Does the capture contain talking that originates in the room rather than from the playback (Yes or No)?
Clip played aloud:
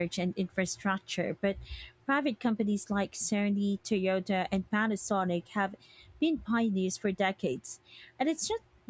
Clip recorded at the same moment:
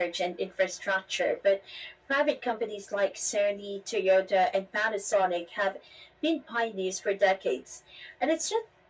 No